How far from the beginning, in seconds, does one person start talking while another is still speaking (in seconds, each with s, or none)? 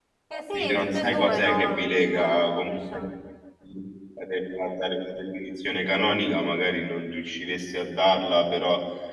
0.5 s